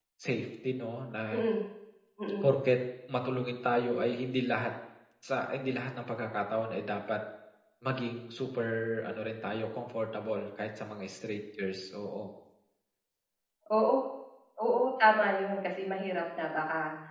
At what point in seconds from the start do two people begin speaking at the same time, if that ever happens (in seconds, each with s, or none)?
none